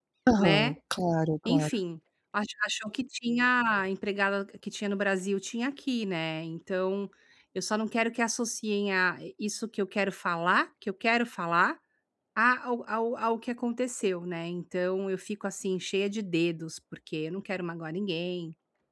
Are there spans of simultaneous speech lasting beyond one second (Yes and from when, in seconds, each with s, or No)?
No